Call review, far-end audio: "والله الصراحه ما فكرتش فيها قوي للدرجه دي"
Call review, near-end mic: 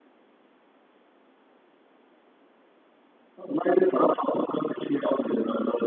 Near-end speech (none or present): none